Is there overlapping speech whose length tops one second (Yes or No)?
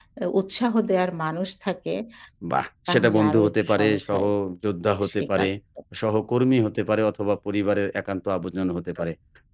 Yes